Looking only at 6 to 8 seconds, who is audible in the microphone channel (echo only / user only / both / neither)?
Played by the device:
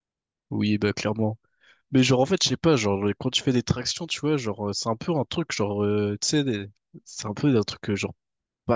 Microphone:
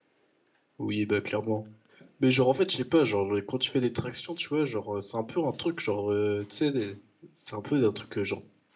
echo only